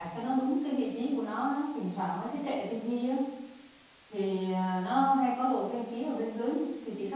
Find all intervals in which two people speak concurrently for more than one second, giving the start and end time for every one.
none

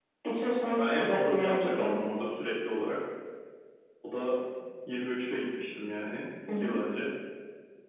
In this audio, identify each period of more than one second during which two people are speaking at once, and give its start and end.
0.7-1.9

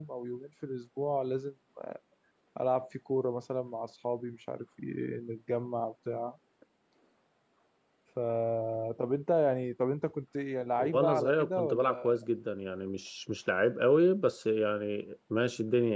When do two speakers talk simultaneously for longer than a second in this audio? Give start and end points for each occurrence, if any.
10.8-12.1

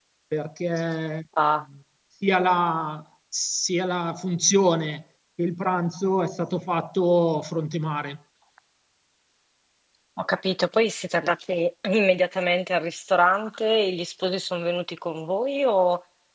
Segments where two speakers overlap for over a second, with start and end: none

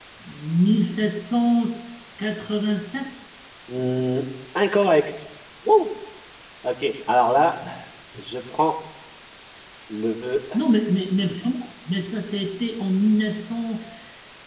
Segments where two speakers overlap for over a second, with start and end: none

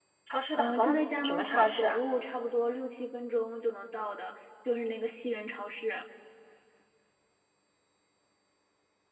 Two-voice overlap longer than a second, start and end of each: 0.6-2.0

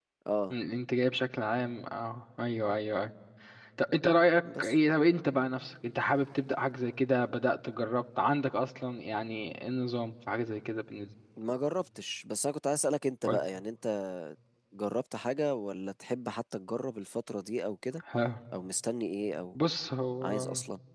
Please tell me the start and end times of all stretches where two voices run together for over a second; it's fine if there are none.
none

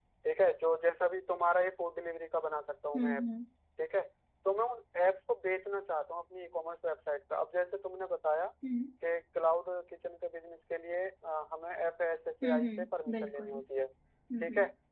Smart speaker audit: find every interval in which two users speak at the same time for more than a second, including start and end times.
12.4-13.6

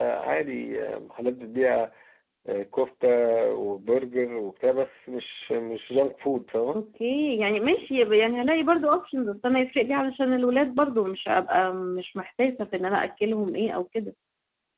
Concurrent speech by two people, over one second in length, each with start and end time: none

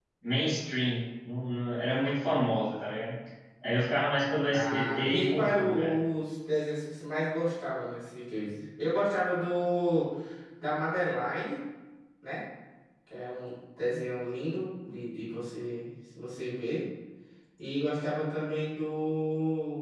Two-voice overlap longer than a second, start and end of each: 4.5-5.9

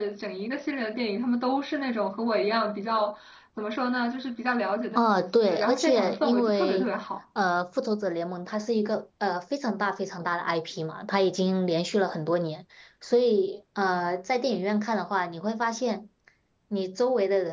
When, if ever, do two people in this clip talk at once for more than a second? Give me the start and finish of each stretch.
5.0-6.9

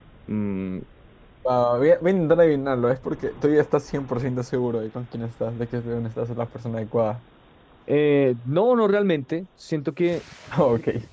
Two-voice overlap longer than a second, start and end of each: none

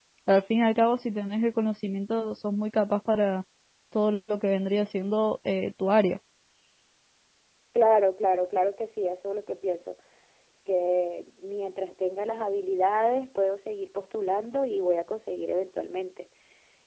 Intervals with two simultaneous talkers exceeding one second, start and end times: none

